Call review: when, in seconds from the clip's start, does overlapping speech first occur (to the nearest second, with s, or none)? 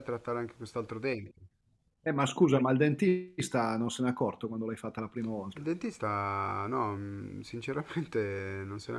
none